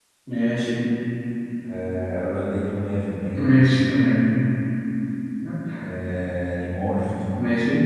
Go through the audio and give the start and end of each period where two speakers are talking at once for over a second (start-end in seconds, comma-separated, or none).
none